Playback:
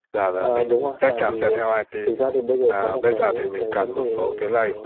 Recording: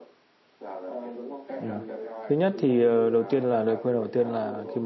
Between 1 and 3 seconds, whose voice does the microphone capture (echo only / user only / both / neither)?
both